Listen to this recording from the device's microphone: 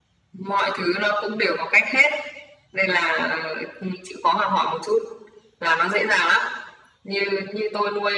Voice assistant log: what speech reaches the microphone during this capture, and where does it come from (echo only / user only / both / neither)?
echo only